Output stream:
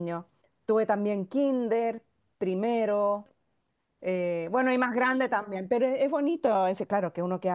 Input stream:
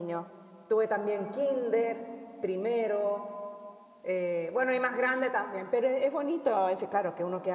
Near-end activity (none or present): none